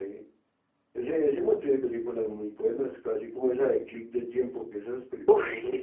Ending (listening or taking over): taking over